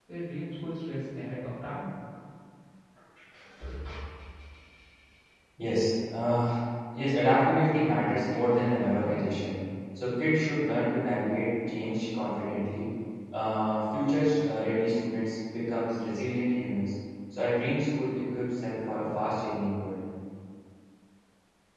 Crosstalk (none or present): none